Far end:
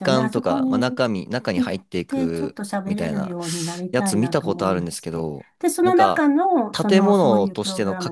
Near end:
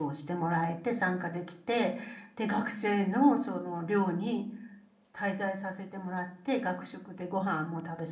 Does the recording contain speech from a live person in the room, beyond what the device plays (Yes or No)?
Yes